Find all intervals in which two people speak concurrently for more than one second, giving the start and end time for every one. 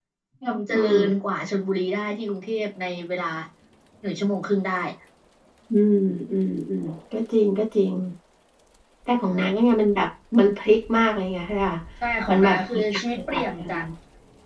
12.3-13.8

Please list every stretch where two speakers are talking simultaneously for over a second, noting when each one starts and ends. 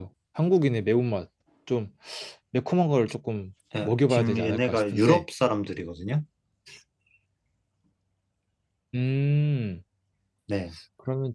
3.8-5.2

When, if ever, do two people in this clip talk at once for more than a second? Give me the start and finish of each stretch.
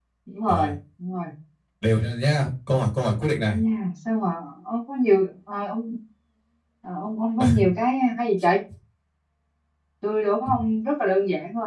none

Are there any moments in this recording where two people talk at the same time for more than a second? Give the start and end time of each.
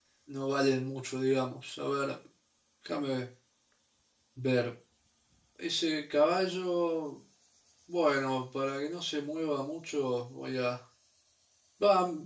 none

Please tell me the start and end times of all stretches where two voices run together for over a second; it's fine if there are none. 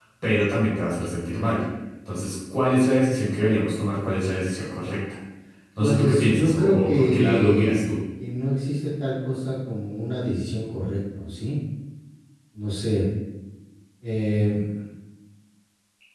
5.8-7.9

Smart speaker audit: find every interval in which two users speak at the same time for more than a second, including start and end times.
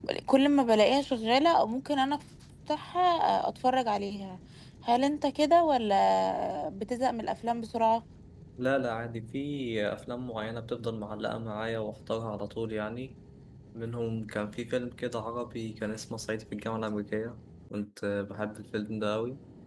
none

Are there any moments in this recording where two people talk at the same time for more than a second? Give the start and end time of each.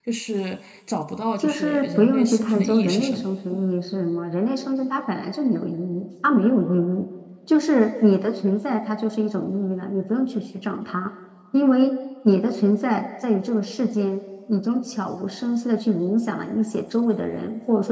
1.4-3.3

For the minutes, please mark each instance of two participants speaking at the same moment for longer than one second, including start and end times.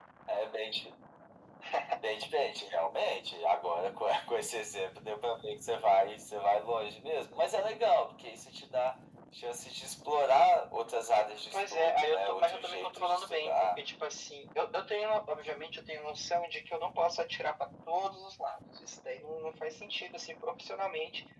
11.5-13.8

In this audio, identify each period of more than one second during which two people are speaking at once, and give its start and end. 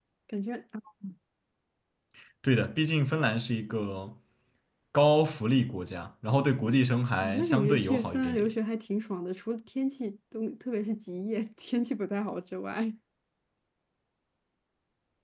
7.2-8.5

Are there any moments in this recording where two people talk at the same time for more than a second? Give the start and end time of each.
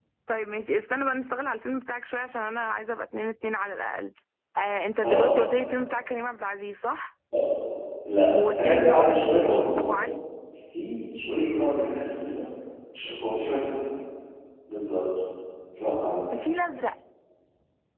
8.3-10.0

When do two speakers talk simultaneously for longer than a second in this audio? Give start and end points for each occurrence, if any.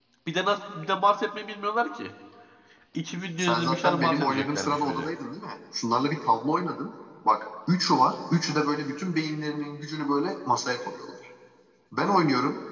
3.4-5.1

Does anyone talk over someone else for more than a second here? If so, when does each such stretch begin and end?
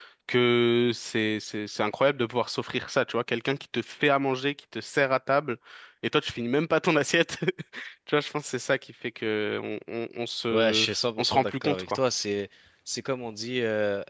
10.5-12.0

